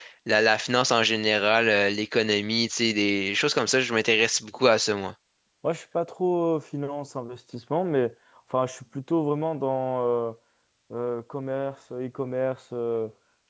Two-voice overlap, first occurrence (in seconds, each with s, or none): none